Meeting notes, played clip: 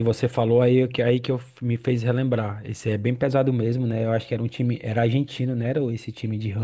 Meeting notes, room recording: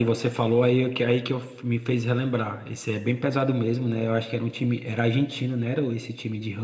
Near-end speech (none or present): none